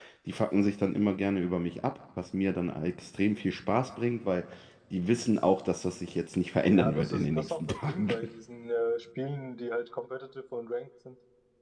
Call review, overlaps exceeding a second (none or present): present